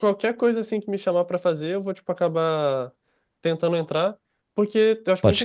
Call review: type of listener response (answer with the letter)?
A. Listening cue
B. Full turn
A